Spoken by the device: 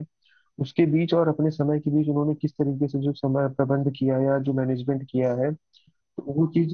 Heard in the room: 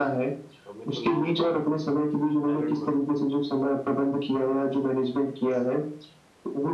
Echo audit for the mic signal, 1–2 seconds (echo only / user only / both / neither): both